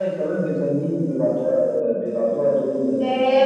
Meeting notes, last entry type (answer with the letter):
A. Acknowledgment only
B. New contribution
B